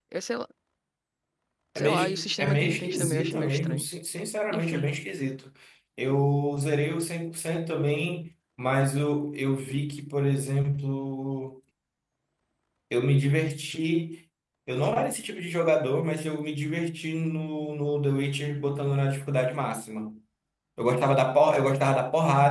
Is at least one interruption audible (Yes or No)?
Yes